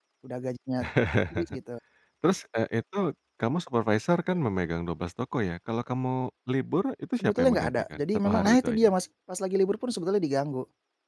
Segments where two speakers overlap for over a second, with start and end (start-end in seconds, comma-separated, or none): 7.2-8.9